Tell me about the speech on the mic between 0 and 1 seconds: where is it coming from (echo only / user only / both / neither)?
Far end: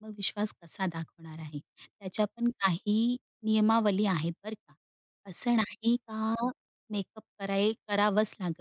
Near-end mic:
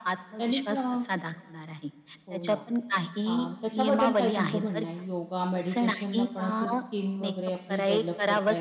both